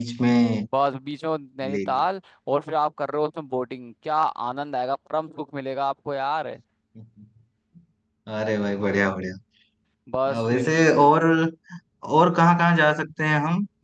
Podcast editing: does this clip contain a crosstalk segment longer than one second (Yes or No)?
No